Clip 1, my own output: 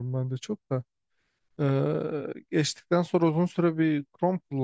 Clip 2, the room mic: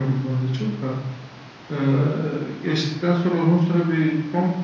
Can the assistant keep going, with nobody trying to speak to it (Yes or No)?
Yes